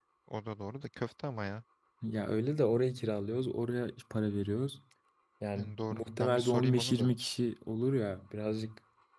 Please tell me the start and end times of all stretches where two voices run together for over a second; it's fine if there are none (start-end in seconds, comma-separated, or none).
5.5-7.1